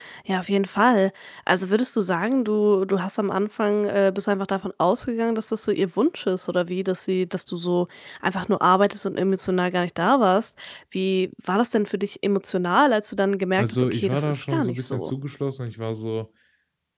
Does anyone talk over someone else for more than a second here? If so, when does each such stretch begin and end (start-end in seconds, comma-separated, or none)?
13.6-15.1